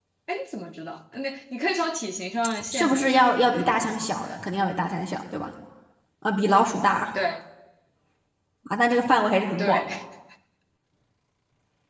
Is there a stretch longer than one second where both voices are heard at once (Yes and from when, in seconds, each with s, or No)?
Yes, from 2.7 s